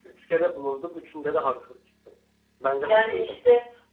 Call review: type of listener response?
taking over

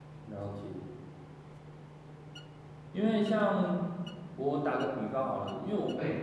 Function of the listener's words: listening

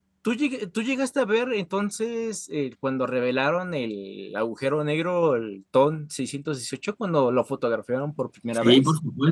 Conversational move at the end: taking over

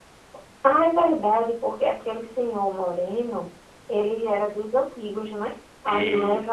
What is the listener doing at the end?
listening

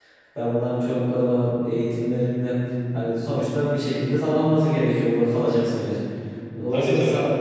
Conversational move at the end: listening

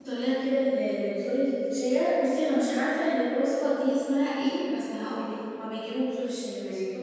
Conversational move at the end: listening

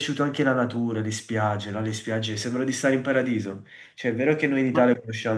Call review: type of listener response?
listening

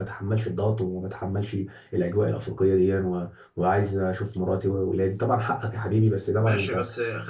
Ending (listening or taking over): taking over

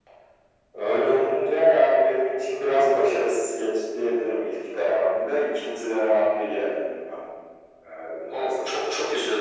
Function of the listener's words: taking over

